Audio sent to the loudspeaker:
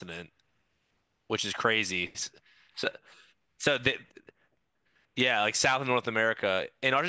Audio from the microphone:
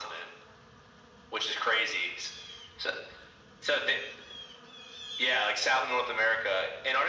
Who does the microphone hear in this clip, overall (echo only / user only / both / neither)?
echo only